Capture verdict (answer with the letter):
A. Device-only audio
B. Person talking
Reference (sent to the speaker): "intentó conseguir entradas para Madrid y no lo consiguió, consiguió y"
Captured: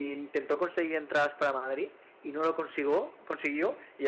A